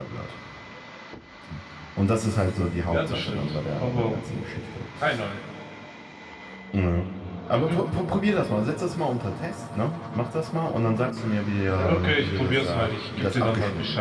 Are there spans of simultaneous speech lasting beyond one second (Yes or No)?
Yes